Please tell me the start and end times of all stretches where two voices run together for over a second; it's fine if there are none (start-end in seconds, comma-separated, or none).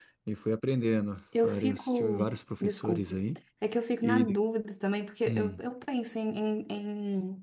1.4-3.0